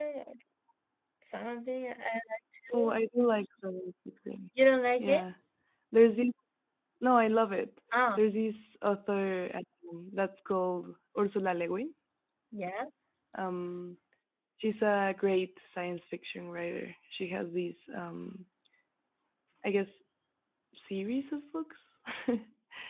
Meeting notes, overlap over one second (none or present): none